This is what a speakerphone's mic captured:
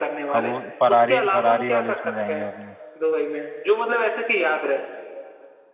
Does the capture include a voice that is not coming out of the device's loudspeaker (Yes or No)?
Yes